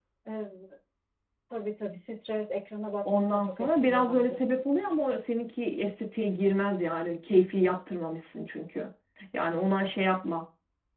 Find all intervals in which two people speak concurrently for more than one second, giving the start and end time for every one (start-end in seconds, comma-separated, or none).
3.1-4.4